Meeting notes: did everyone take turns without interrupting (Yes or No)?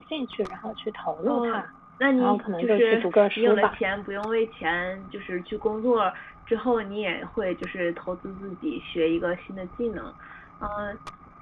No